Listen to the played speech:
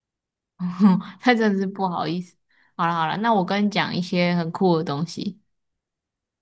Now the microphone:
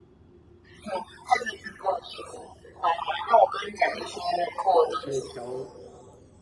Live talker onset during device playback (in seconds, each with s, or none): 4.8 s